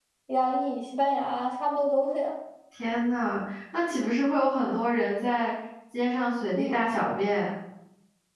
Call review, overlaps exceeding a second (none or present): none